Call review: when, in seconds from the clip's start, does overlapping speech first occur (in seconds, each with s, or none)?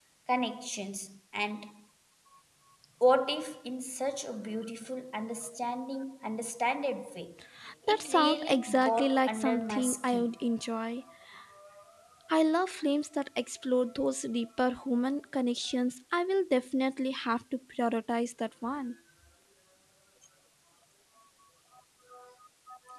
7.9 s